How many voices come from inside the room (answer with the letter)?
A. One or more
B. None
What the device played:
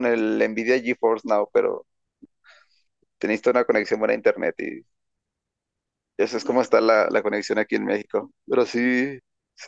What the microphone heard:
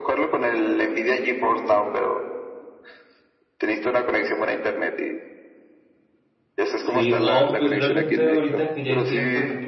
A